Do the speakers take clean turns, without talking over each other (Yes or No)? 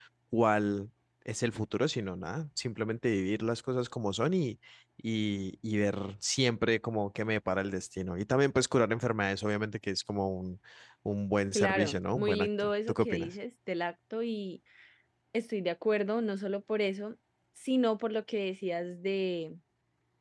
No